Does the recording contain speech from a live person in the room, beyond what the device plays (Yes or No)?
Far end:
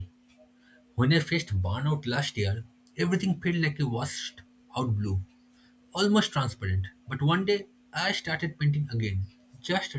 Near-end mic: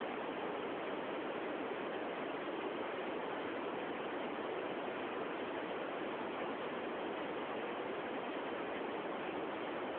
No